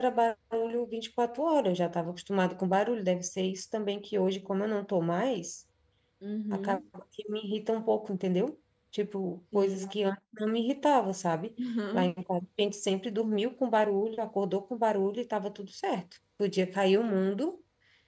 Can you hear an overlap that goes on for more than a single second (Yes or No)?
No